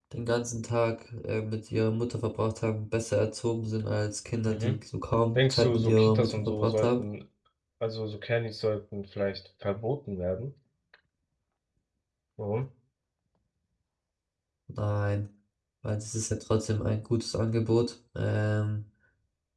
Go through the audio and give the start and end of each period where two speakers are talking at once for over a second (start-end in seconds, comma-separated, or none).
5.4-7.0